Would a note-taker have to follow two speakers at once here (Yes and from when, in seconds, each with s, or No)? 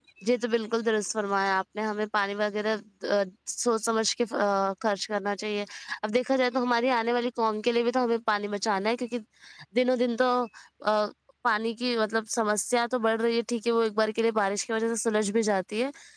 No